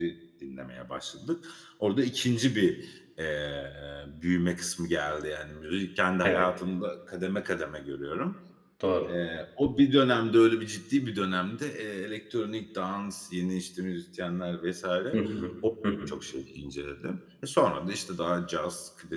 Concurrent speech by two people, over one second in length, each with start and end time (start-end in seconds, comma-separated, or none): none